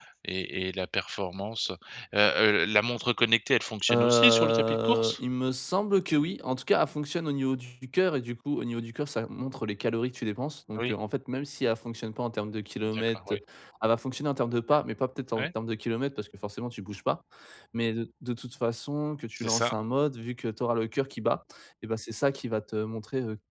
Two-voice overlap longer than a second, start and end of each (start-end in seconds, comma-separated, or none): 3.9-5.2